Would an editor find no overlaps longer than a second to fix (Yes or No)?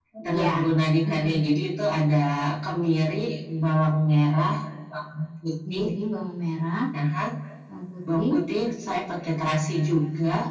Yes